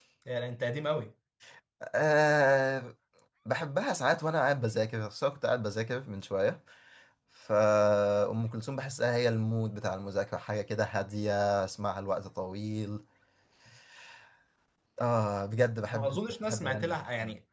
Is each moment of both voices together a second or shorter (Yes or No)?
No